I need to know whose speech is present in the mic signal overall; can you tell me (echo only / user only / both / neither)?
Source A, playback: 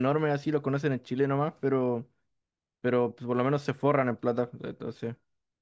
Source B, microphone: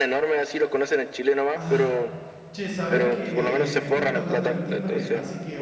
both